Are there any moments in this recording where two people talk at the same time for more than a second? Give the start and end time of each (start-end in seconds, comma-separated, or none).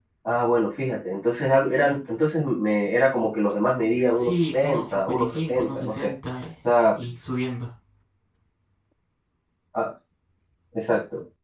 4.1-6.1